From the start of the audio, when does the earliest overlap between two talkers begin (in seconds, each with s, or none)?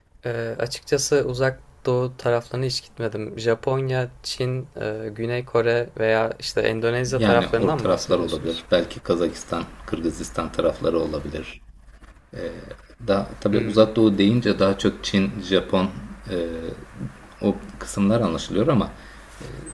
7.2 s